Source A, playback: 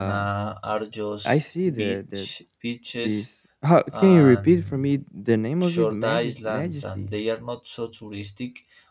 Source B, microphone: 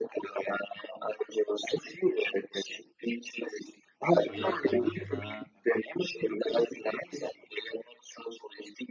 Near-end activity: present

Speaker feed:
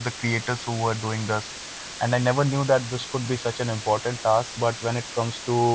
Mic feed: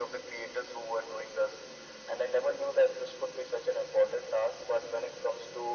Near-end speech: none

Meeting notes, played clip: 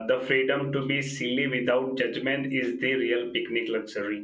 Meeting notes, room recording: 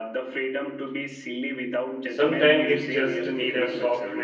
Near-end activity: present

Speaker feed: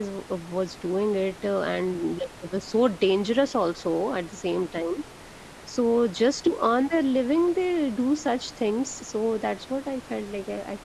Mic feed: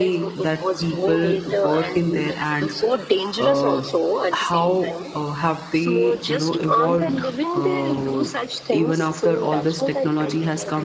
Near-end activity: present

